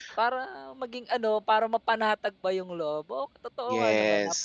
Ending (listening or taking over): taking over